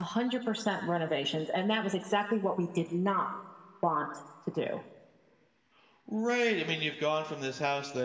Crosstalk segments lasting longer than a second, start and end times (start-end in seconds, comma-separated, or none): none